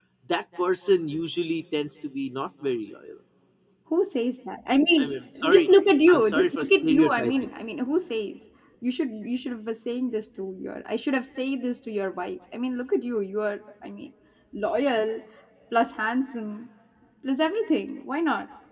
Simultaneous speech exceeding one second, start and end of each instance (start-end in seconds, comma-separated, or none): 6.1-7.3